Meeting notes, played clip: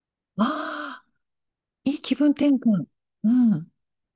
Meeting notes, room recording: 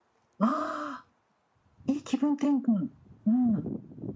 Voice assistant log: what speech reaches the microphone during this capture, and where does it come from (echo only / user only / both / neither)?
echo only